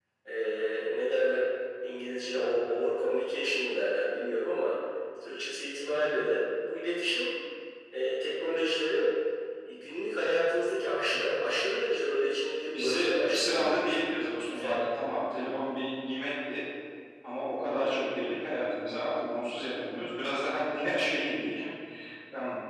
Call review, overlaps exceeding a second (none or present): present